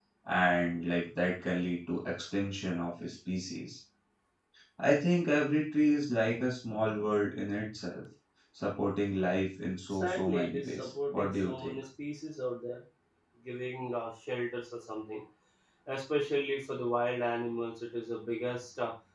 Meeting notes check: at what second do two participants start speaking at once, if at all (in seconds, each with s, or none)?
9.9 s